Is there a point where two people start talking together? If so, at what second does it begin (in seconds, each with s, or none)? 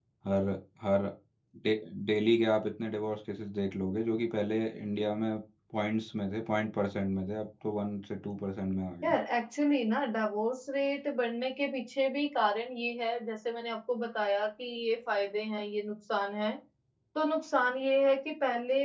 none